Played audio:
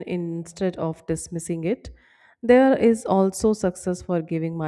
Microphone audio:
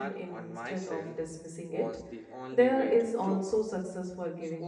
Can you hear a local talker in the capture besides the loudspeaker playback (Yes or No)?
Yes